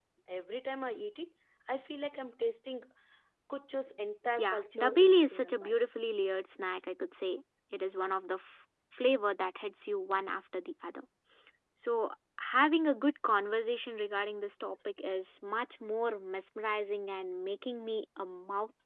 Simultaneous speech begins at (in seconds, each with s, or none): 4.4 s